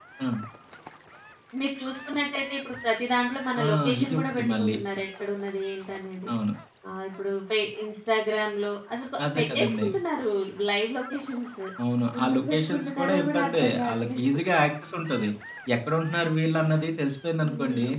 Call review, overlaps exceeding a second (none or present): present